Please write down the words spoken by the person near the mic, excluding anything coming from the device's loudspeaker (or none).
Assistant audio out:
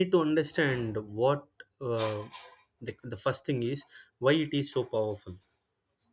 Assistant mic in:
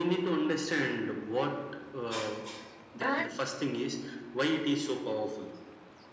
and